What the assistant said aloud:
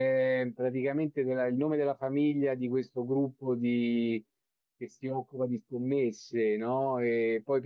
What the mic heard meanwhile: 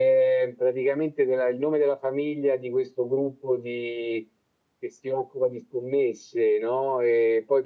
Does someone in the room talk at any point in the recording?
No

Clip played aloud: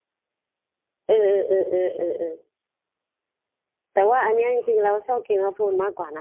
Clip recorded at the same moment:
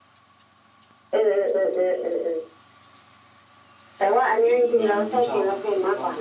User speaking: Yes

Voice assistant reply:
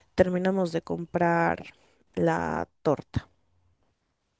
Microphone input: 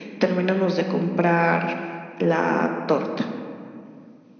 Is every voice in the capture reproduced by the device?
Yes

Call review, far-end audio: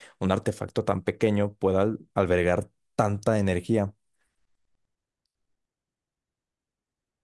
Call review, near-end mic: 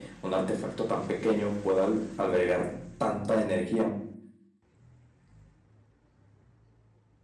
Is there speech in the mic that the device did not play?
No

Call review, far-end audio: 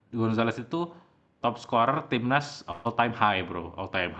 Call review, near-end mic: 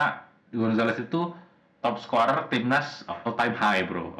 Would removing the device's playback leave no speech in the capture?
Yes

